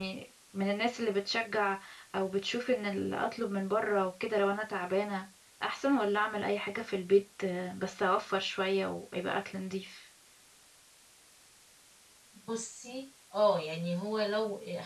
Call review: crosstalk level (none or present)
none